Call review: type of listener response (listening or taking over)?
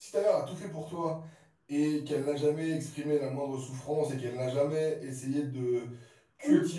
listening